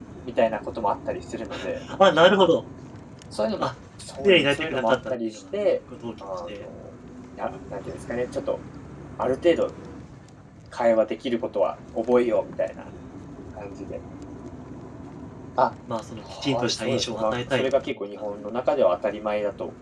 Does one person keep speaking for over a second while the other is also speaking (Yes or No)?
Yes